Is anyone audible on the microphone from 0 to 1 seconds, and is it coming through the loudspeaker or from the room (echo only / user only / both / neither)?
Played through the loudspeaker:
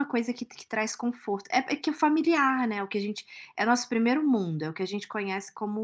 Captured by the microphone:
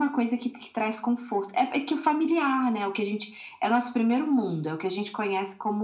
echo only